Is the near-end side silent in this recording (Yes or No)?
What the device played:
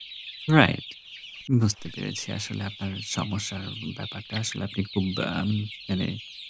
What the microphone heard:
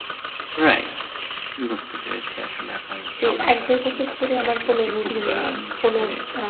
No